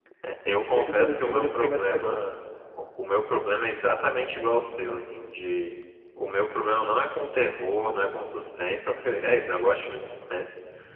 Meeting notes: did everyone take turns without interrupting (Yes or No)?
No